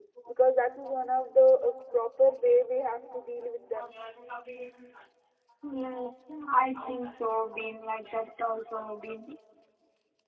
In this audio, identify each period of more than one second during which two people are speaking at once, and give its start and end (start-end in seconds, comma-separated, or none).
none